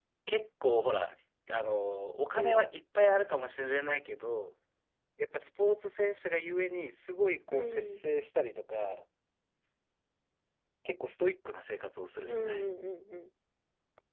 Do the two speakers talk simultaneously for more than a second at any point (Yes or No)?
No